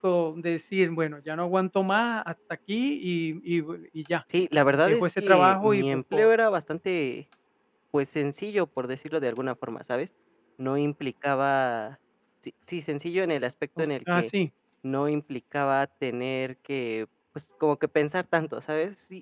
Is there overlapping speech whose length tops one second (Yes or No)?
Yes